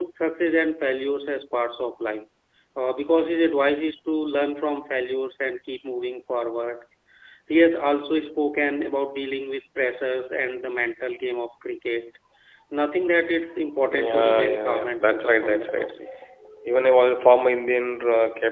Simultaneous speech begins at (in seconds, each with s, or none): 13.8 s